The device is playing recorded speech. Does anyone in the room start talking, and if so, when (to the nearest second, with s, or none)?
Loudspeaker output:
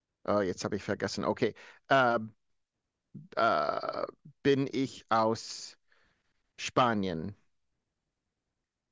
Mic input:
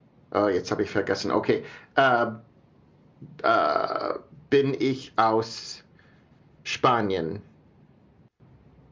none